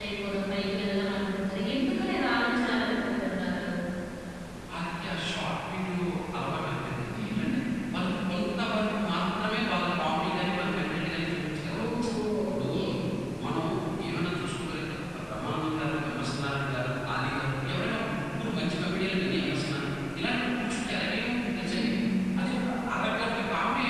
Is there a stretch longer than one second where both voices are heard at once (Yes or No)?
No